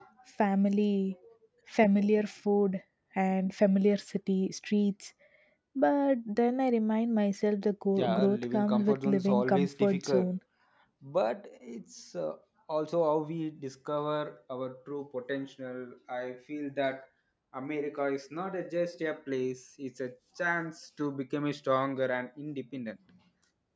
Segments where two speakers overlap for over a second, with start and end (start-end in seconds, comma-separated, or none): 8.0-10.3